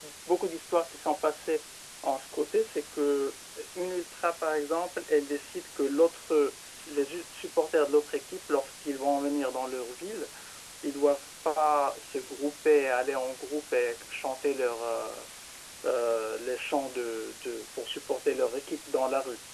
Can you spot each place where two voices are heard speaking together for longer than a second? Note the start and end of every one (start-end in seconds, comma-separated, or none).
none